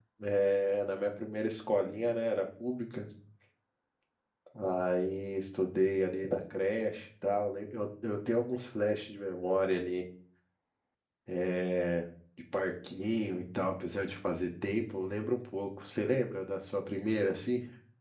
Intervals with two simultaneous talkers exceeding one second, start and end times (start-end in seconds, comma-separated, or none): none